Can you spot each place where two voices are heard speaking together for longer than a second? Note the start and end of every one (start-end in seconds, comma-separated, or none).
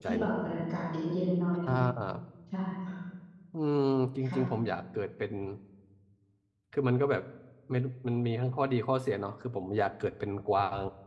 none